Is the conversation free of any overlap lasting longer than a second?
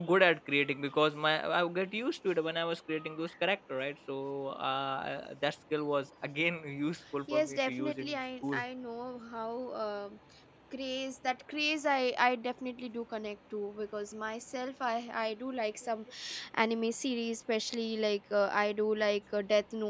No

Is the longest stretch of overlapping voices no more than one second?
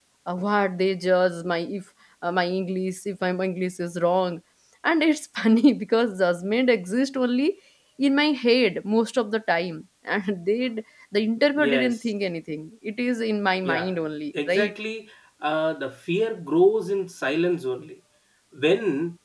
Yes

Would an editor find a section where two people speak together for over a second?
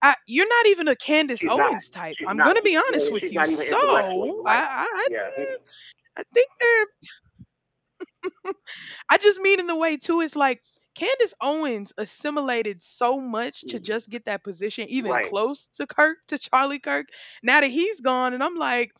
Yes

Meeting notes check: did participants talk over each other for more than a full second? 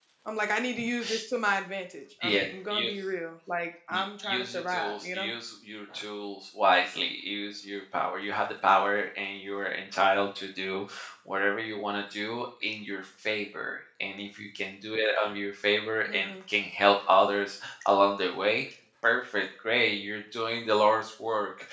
Yes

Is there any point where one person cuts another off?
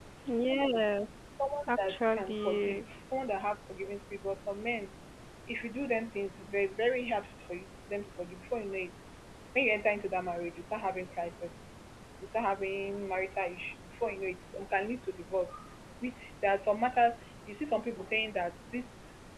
Yes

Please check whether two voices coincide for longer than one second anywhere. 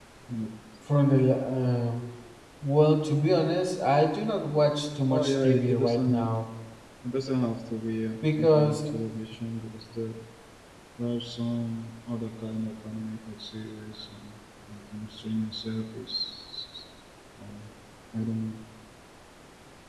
Yes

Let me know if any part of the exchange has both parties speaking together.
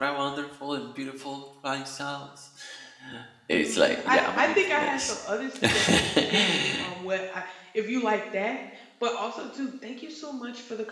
Yes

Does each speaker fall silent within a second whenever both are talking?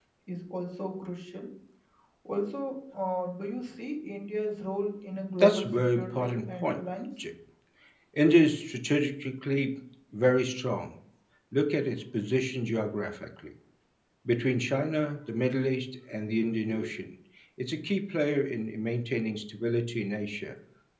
No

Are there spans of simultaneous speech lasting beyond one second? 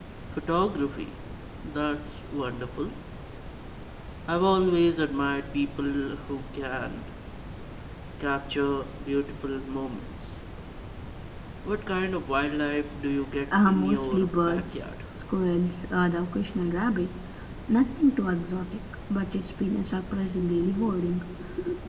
Yes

